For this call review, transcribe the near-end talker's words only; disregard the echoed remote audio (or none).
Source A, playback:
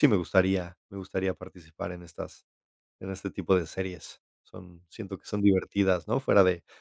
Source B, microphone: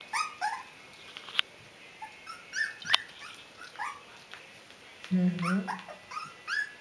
Ujú,